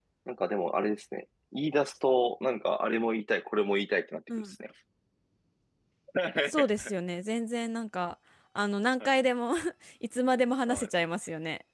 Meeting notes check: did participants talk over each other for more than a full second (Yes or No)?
No